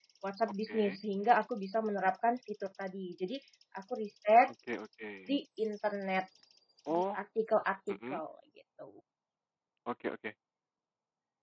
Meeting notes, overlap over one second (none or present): none